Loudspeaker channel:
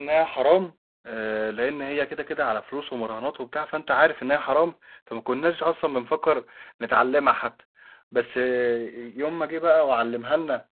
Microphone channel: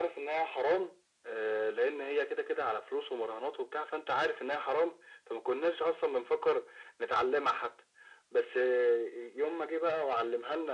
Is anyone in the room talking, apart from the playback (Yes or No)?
No